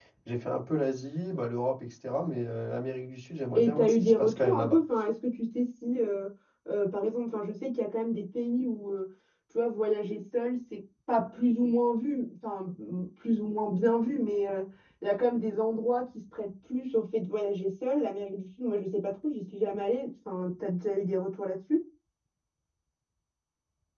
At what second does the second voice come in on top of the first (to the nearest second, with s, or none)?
4 s